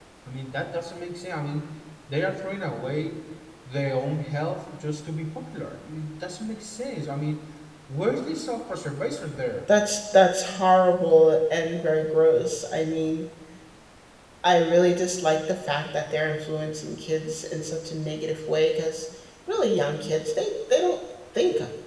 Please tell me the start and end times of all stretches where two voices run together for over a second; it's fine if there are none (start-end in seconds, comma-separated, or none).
none